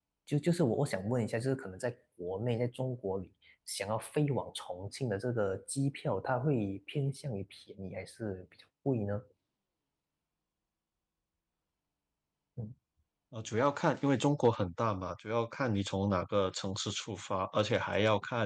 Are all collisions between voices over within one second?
Yes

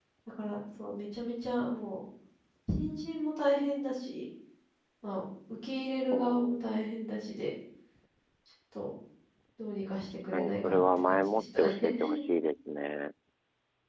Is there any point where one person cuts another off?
Yes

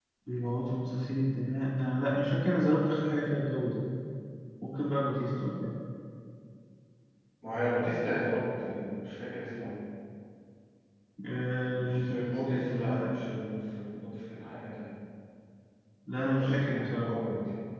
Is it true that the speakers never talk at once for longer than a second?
No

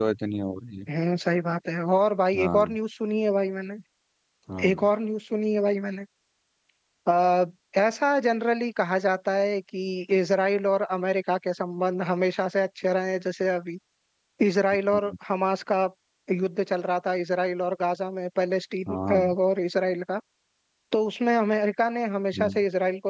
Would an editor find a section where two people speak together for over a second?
No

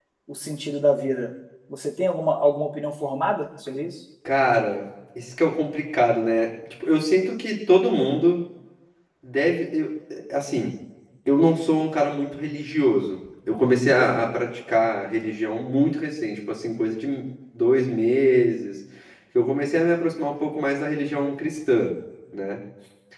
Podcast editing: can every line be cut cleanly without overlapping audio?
Yes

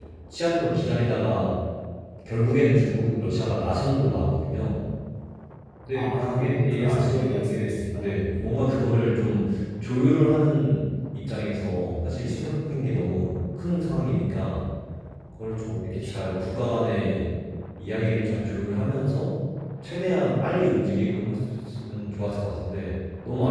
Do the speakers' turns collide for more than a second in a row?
Yes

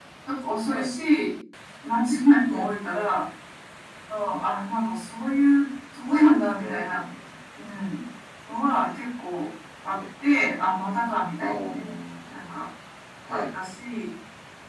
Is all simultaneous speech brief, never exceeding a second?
Yes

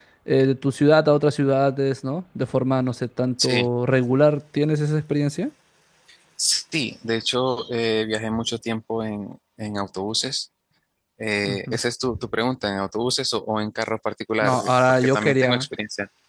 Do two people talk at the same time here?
Yes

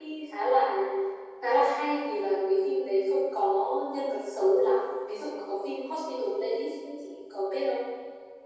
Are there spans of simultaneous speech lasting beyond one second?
No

